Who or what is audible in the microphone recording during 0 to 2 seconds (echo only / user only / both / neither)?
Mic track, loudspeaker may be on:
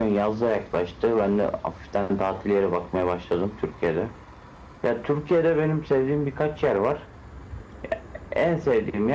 echo only